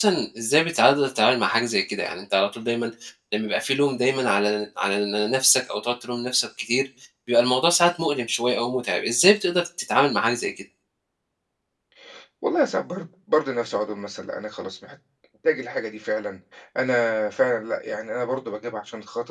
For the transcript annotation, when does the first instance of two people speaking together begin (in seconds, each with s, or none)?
none